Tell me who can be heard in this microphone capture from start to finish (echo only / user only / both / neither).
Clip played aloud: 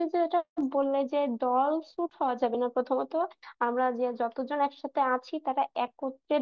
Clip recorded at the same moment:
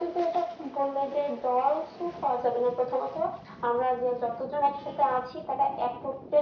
echo only